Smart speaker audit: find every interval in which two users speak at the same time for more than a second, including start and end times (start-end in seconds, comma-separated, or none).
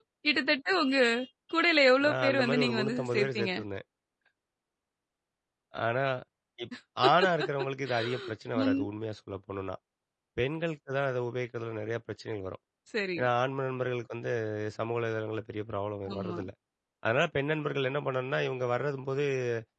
2.0-3.5